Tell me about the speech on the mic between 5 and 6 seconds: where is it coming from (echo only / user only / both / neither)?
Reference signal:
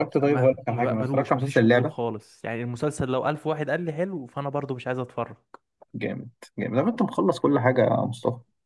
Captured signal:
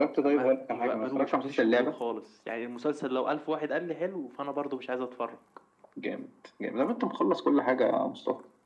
echo only